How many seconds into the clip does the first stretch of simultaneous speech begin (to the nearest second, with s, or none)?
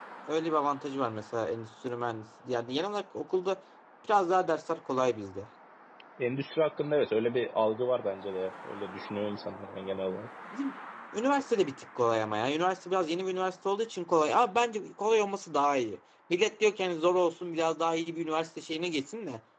none